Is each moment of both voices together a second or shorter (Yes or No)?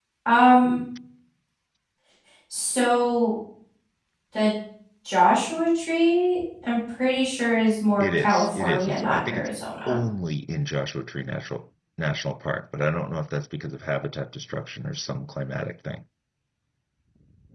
No